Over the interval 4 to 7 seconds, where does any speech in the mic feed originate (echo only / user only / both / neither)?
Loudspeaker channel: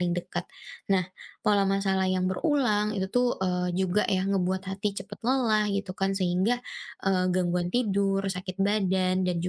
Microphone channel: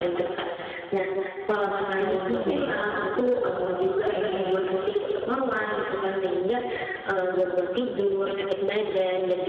echo only